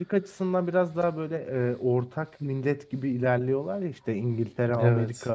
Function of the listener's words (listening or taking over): listening